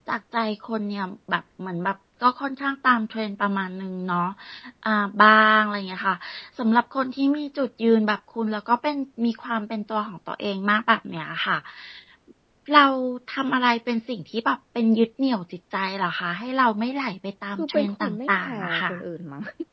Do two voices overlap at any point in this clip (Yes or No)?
Yes